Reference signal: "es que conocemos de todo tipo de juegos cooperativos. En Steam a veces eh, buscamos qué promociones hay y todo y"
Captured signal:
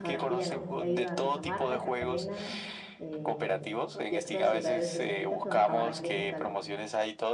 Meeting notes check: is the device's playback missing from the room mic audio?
No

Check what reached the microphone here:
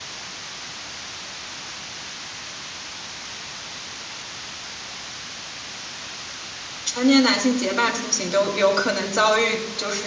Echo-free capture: Yes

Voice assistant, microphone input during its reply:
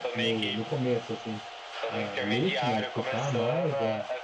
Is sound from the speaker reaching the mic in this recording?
Yes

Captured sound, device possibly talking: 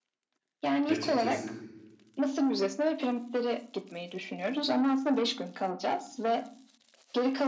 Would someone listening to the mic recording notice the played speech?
Yes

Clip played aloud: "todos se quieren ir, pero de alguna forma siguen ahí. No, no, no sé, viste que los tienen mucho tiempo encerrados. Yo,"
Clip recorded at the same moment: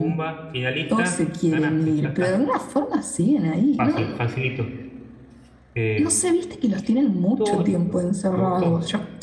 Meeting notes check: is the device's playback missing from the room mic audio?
No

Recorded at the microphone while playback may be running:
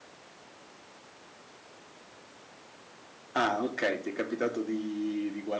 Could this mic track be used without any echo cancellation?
Yes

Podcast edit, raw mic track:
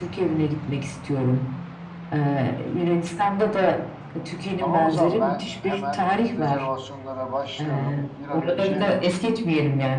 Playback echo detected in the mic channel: Yes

